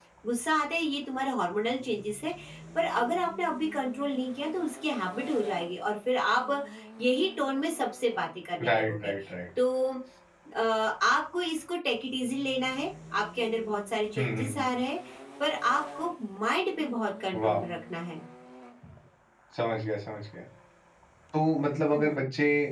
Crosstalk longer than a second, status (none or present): none